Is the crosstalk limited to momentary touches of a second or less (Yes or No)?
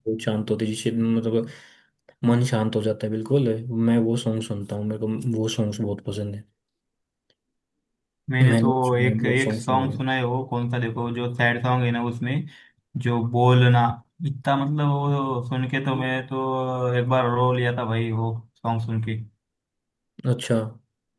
No